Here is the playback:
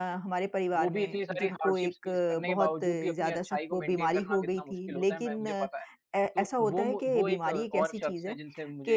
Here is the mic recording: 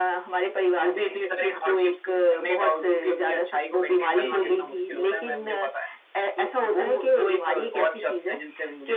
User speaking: Yes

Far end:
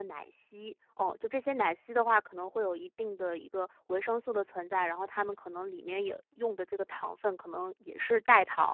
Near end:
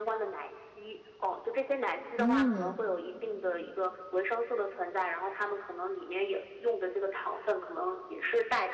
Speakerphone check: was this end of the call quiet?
No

